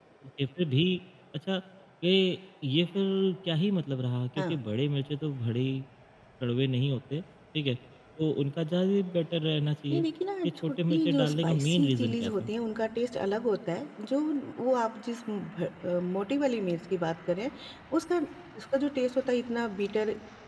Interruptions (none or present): present